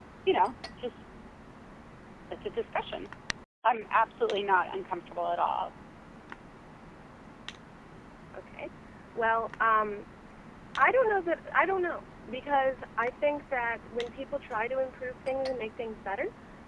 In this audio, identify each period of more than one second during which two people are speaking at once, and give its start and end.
none

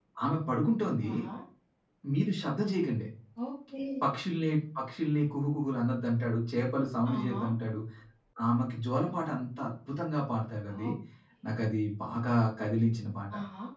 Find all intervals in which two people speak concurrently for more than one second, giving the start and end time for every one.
none

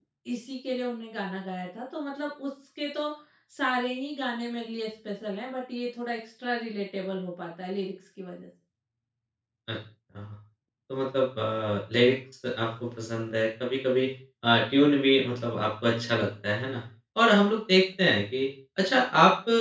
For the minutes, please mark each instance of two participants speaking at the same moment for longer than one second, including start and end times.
none

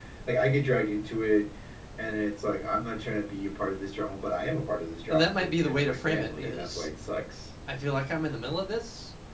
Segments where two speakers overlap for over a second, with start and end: 5.1-6.9

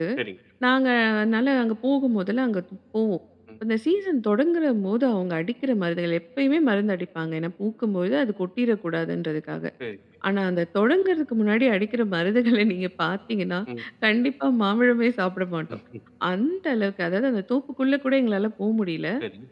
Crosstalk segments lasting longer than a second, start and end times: none

